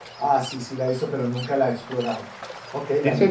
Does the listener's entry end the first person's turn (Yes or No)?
Yes